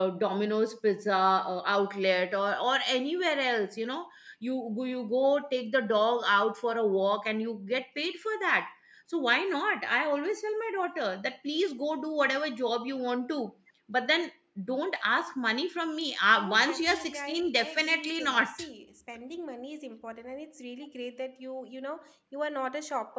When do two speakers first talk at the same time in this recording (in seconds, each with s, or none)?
16.4 s